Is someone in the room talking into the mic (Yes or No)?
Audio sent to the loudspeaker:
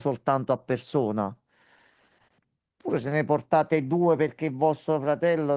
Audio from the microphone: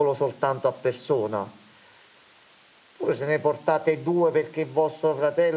No